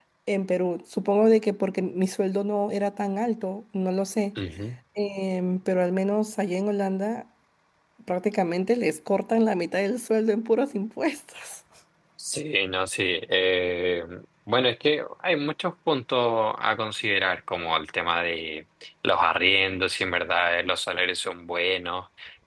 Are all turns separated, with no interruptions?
Yes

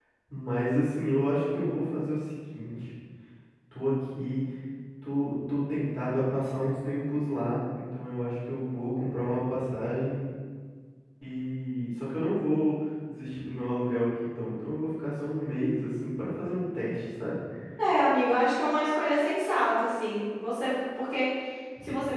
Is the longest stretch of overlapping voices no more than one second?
Yes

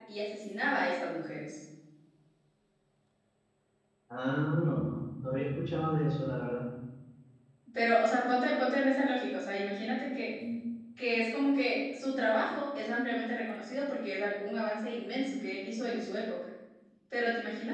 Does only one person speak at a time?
Yes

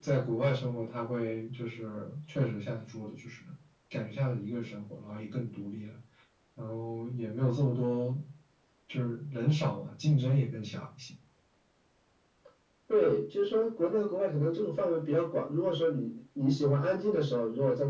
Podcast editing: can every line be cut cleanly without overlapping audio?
Yes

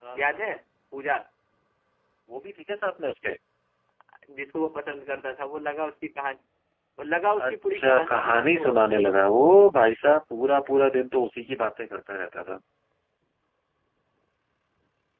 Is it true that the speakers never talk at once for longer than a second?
No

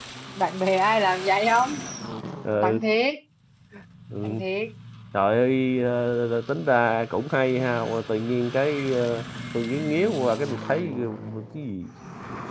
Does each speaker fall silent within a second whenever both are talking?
Yes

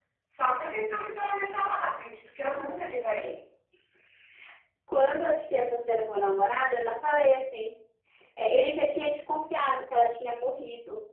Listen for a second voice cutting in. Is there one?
No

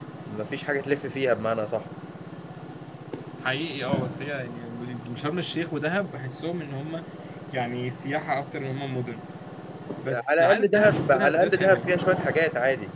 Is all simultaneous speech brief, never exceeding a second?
No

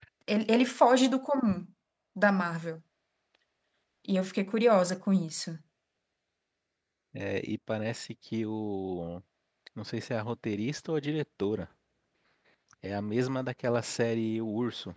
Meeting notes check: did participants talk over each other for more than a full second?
No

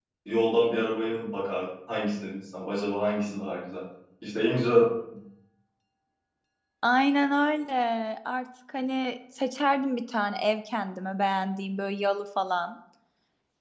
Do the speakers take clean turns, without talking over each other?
Yes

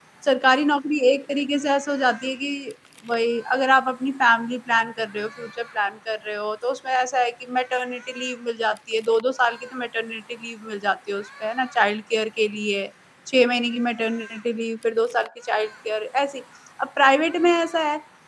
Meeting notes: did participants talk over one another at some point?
No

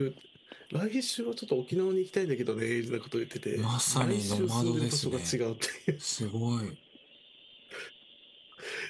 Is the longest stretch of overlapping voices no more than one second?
No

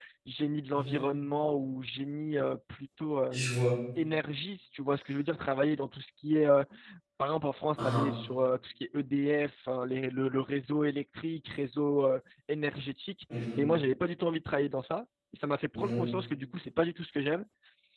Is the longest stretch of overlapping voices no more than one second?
Yes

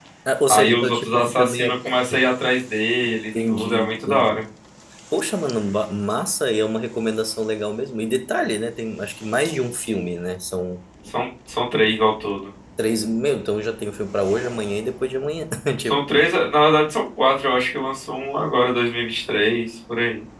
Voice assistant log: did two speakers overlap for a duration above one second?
Yes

